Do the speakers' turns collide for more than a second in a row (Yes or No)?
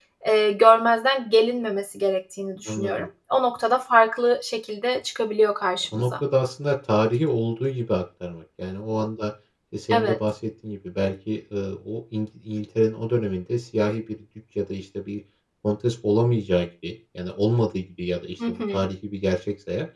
No